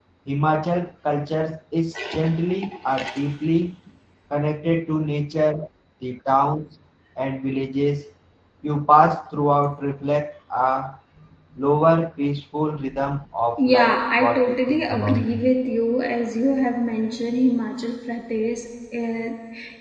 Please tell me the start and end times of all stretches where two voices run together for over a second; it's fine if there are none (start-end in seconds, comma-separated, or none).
13.6-15.4